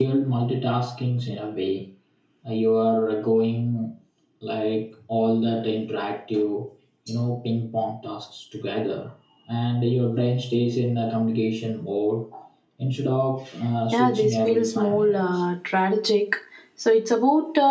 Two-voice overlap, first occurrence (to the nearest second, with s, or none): 14 s